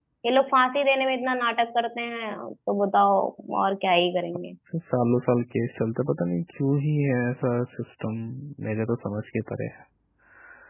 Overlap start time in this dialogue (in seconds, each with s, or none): none